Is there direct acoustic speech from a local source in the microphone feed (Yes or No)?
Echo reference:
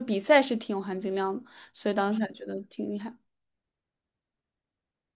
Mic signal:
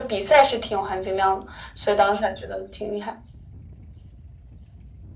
No